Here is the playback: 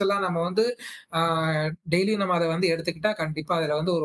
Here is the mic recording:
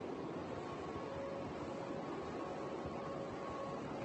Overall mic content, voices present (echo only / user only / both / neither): neither